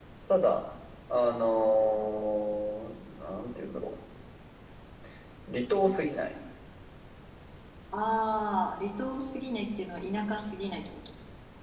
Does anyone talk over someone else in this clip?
No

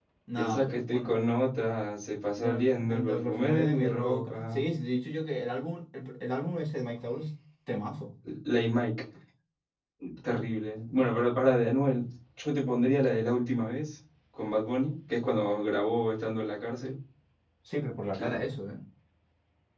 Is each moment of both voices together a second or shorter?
No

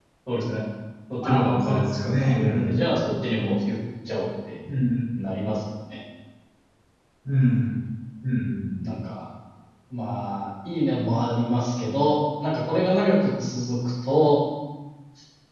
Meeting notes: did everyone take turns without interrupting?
No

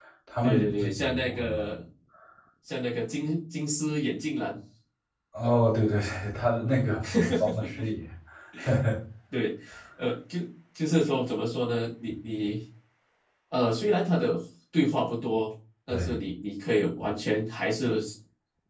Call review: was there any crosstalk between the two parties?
Yes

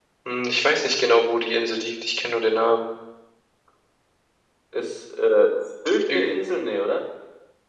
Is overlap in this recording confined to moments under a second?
Yes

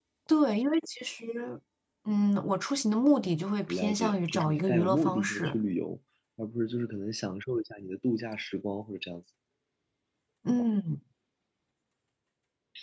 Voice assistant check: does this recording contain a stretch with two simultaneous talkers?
Yes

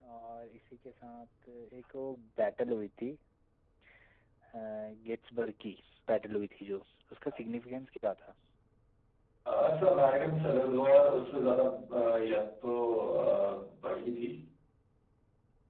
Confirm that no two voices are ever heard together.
Yes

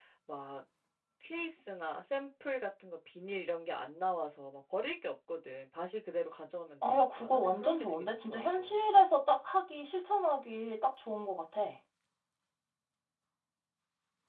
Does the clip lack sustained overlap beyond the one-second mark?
No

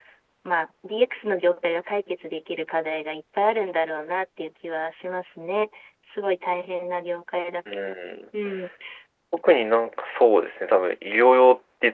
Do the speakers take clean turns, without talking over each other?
Yes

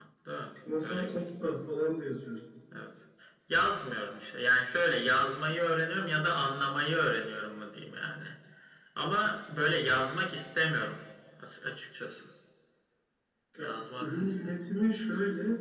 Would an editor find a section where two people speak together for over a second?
Yes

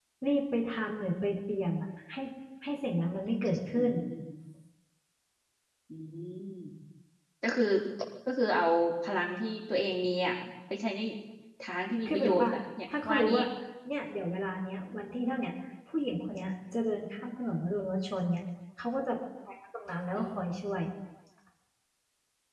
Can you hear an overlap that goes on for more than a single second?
No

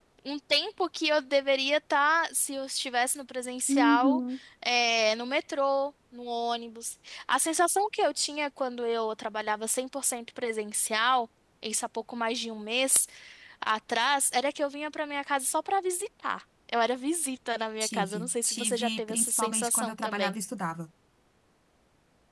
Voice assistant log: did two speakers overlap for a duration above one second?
Yes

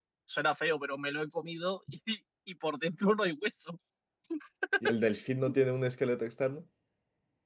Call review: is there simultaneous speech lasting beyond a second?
No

